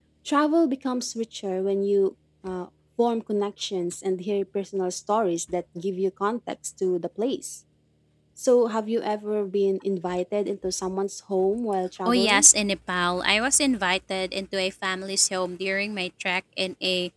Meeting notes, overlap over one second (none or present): none